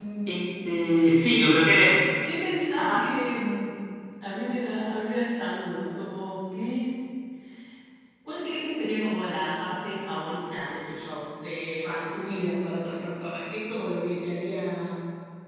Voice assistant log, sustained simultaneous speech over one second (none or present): none